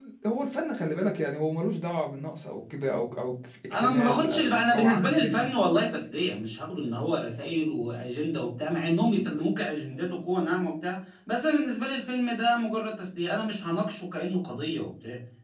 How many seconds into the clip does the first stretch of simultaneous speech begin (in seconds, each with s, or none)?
3.7 s